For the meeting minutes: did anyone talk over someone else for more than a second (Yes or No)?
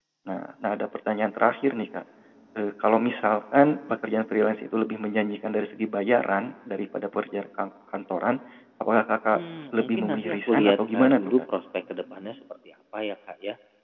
Yes